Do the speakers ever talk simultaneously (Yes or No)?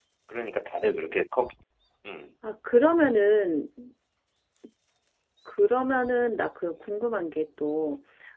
No